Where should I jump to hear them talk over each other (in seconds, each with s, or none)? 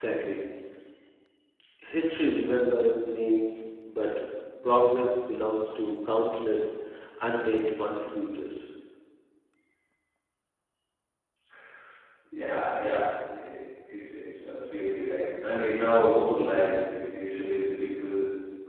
none